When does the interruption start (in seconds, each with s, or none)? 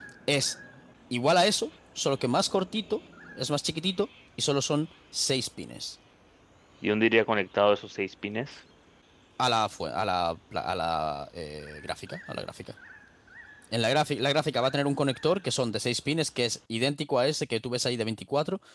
none